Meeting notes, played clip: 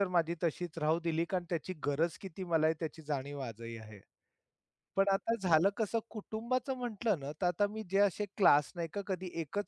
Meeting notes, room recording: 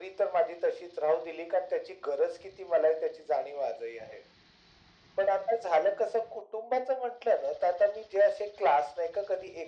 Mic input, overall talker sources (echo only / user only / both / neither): echo only